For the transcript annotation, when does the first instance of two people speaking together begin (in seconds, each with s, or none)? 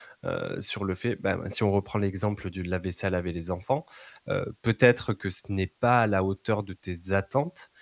none